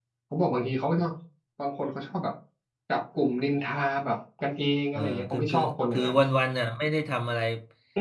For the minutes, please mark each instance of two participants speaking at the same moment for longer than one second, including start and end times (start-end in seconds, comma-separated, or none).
4.9-6.2